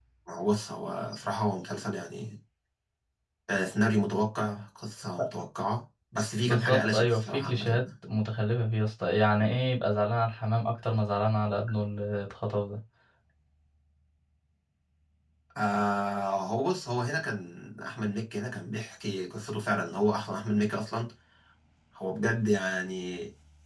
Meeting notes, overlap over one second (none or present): present